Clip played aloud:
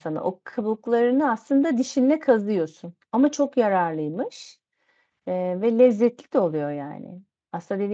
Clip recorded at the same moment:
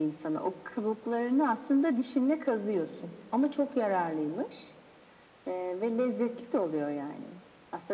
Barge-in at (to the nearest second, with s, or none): none